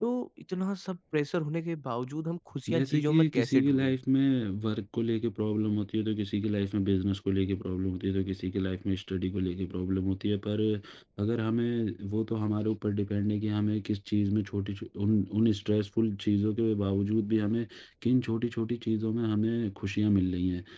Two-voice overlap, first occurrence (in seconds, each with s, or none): 2.7 s